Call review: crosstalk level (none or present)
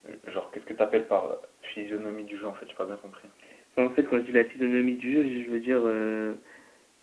none